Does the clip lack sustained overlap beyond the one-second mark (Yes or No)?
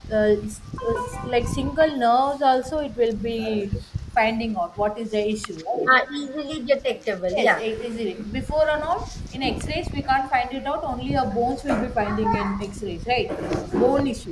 Yes